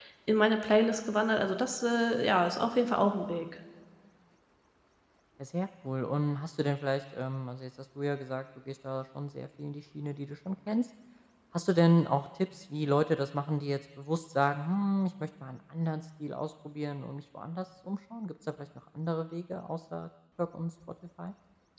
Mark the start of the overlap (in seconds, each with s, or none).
none